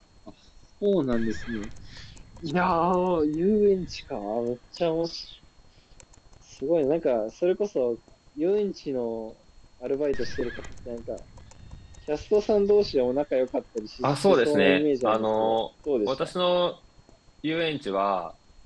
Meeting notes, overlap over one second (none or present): present